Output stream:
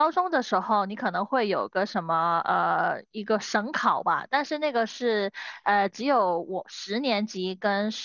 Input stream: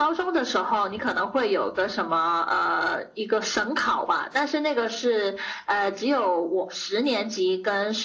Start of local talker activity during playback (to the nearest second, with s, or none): none